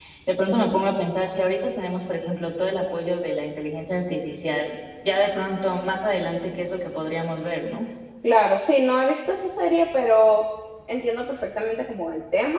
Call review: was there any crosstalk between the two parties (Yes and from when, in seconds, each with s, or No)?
No